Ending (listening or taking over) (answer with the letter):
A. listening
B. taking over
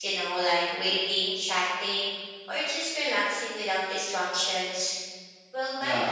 B